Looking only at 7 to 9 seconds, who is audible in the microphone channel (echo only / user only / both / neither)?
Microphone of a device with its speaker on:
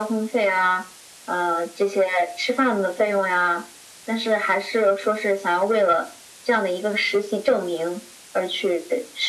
echo only